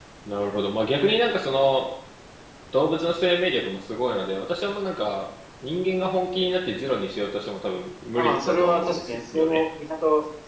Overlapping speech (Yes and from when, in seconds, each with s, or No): Yes, from 8.2 s